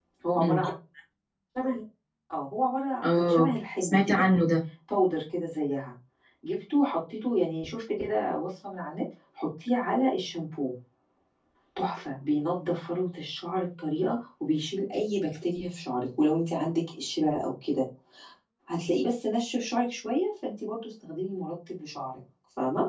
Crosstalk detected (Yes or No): Yes